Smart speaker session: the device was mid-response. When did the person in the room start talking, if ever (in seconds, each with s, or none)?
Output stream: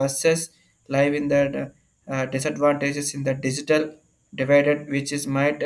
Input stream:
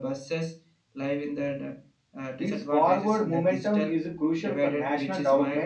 2.3 s